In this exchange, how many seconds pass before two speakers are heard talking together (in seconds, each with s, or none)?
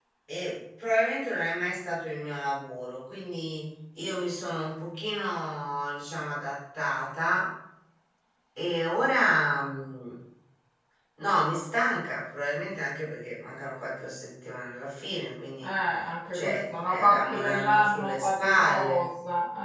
16.3 s